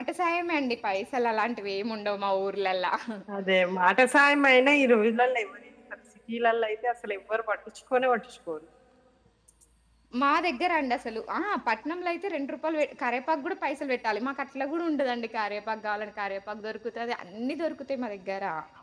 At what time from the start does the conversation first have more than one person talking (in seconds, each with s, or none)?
none